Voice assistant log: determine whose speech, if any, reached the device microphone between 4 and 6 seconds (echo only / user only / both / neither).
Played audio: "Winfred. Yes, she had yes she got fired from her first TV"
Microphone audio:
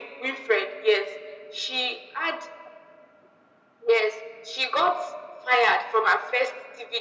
echo only